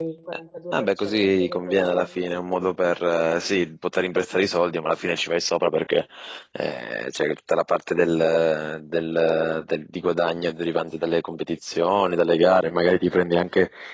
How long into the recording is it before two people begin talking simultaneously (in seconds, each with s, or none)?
0.7 s